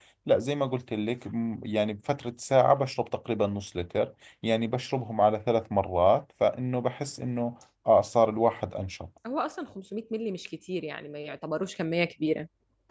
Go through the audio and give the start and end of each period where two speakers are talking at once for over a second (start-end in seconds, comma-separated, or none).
none